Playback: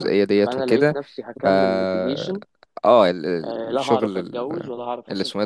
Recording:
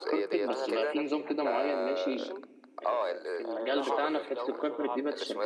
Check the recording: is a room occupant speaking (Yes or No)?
Yes